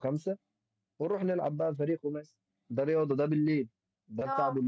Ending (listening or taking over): listening